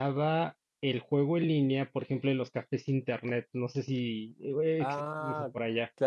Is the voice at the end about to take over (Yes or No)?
Yes